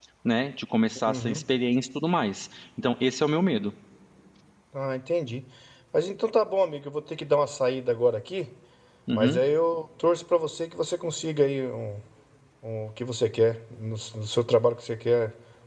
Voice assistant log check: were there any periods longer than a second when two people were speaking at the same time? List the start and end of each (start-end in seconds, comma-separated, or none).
none